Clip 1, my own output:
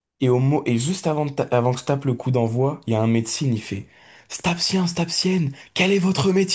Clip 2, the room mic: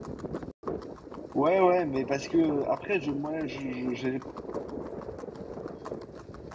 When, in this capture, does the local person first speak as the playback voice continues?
1.3 s

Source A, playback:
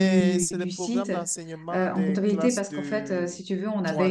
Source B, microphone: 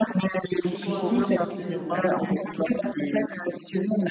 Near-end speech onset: 0.6 s

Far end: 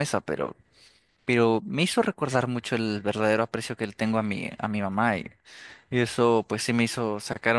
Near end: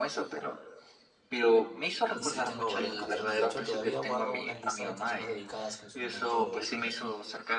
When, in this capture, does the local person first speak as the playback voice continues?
2.1 s

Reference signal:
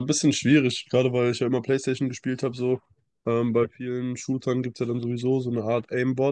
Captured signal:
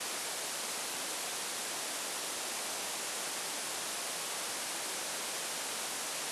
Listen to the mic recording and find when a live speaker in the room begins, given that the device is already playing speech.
none

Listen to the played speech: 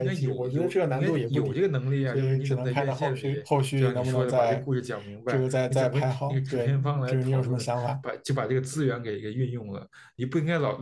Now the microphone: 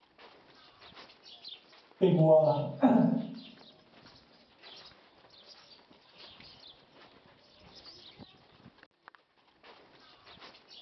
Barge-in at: 2.0 s

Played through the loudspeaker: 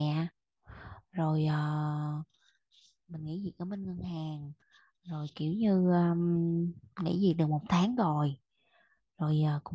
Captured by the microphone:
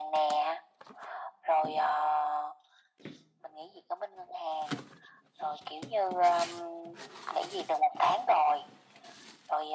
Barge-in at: none

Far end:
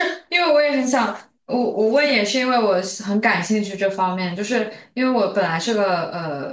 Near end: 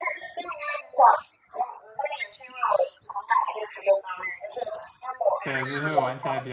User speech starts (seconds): 5.4 s

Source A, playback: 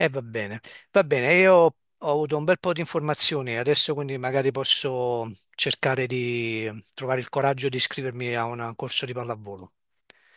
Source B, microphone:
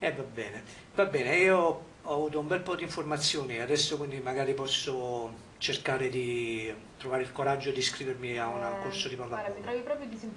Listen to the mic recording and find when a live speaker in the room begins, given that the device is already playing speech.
8.3 s

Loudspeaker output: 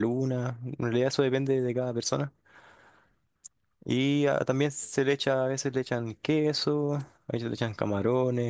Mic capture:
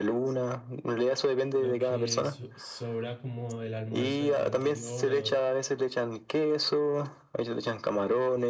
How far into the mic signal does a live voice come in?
1.5 s

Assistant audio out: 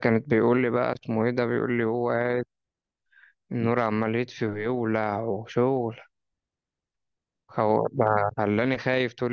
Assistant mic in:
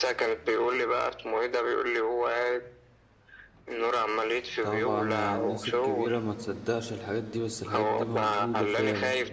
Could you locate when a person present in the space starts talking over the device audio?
4.6 s

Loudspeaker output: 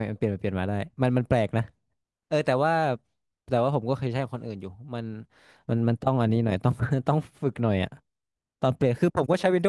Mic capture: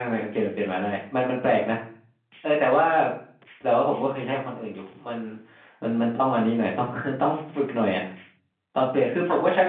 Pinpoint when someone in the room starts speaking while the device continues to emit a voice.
none

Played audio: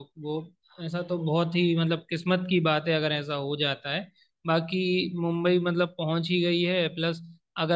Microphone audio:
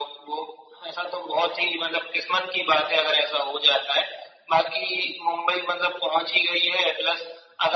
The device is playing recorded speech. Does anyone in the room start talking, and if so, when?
none

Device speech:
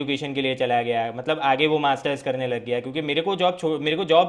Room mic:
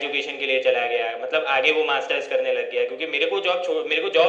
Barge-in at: none

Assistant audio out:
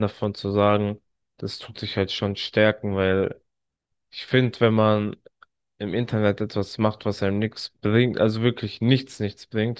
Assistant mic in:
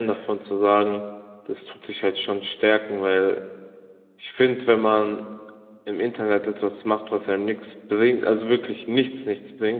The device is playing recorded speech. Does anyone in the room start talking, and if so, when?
none

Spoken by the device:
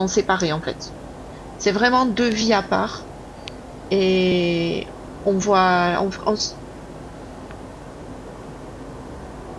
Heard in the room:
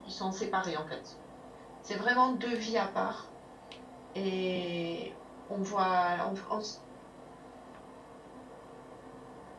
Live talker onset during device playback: none

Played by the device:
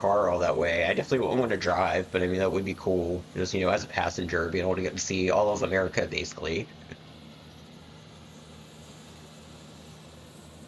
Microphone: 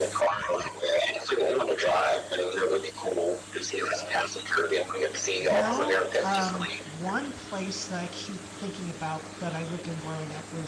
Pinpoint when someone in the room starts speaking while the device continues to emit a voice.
5.5 s

